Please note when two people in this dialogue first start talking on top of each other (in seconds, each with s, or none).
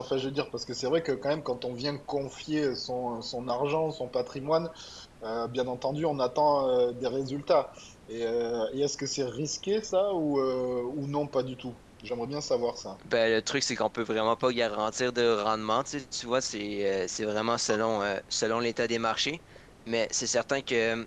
none